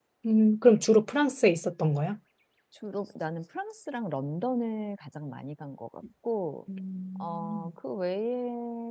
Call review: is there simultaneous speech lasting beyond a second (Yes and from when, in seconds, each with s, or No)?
No